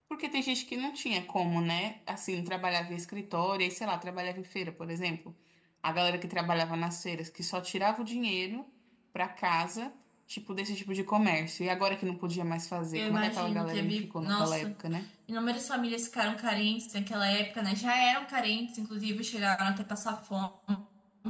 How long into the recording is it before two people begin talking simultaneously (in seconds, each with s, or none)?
12.9 s